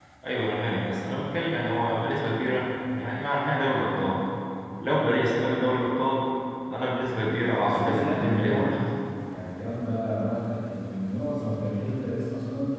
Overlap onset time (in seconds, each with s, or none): 7.6 s